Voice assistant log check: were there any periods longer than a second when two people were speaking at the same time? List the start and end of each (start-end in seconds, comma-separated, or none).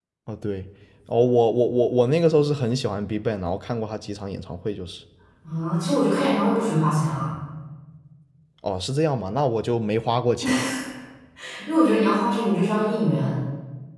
none